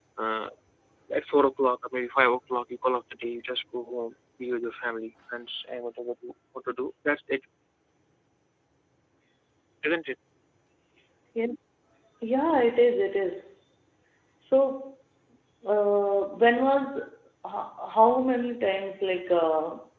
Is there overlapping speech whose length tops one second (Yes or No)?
No